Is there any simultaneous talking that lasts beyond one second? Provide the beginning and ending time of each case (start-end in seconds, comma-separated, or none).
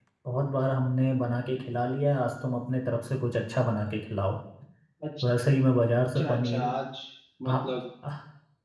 none